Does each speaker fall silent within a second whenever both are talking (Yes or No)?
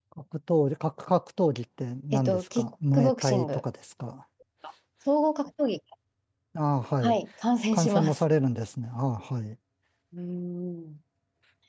No